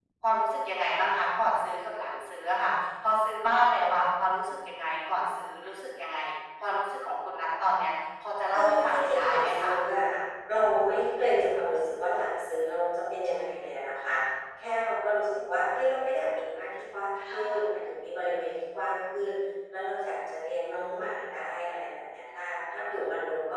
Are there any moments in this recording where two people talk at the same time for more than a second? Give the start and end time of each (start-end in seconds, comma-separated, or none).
8.5-9.8